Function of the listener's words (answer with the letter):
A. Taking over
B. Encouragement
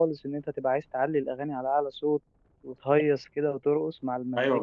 A